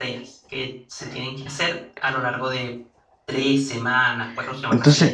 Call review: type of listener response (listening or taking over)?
taking over